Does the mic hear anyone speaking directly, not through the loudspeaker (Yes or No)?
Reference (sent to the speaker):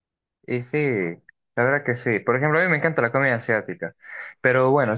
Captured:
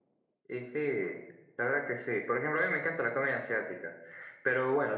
No